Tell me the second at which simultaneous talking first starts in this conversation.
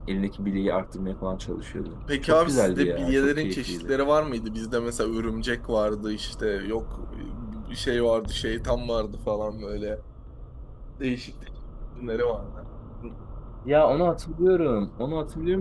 2.1 s

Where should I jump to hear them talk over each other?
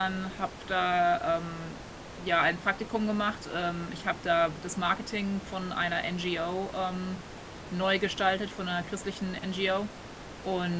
none

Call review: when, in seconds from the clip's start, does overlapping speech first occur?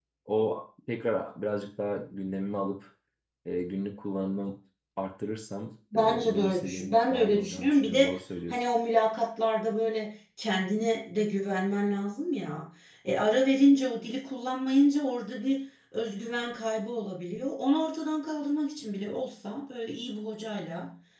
5.9 s

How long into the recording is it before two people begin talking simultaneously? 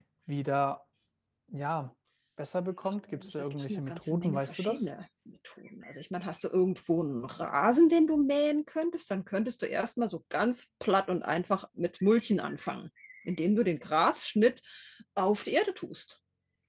3.1 s

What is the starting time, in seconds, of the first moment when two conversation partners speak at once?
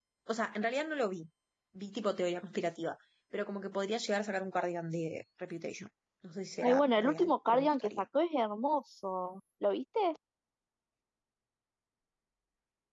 6.6 s

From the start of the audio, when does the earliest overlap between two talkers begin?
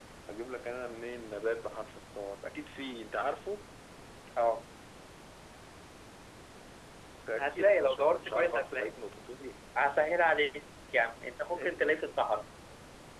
7.4 s

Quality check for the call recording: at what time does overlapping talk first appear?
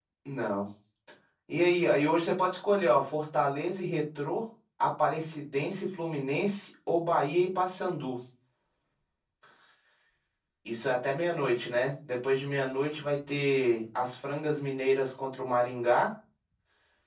none

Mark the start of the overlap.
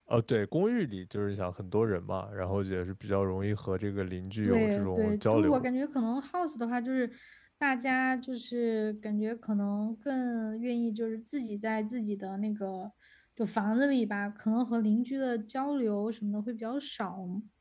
4.4 s

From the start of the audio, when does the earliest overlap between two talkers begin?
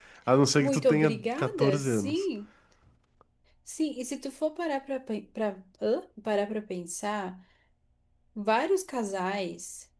0.6 s

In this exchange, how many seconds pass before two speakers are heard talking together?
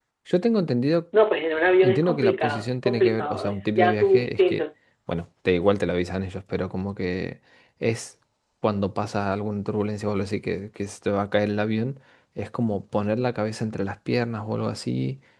1.8 s

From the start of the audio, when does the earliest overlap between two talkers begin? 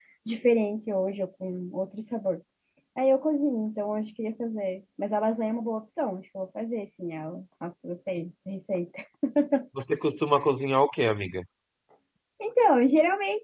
none

